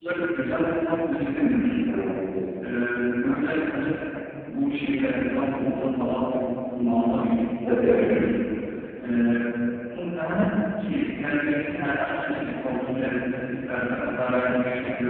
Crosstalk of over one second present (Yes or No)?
No